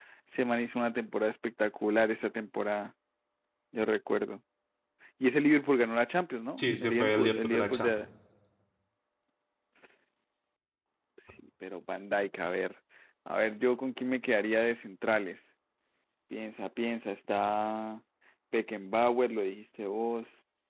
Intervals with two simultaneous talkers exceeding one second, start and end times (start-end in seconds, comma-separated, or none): 6.6-8.1